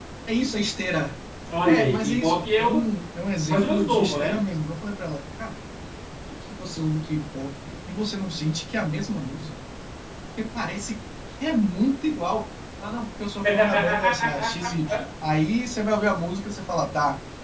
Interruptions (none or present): present